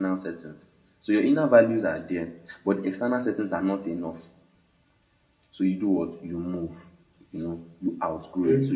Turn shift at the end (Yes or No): No